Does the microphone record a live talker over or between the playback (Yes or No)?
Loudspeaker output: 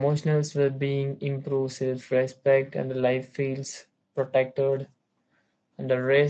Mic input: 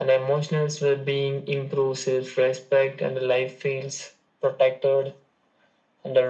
No